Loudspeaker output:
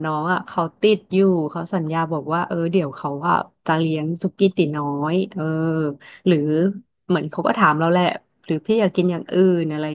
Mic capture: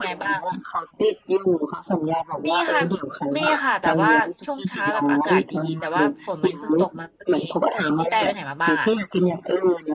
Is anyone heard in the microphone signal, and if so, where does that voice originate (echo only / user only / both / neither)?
both